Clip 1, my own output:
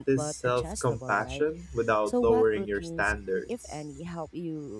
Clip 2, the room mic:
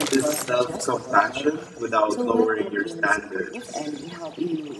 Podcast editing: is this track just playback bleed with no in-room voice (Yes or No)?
Yes